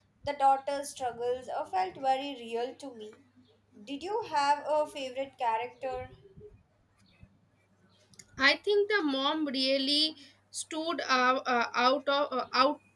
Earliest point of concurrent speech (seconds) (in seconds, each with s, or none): none